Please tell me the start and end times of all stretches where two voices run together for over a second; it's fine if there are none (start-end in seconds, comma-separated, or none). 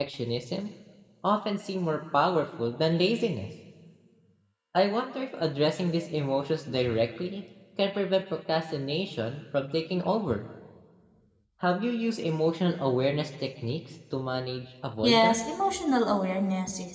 none